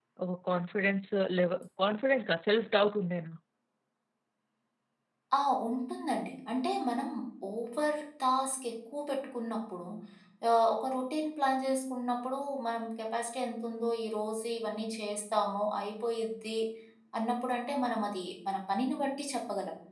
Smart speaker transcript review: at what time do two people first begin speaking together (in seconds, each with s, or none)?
none